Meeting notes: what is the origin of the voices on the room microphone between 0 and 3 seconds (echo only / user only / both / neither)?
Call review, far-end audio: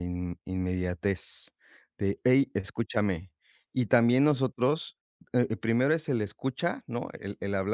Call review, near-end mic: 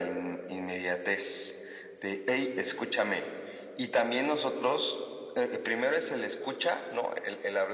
echo only